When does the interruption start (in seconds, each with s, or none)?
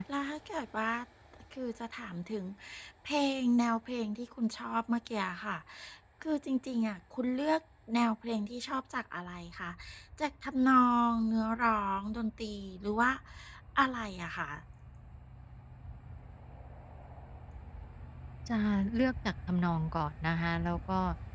none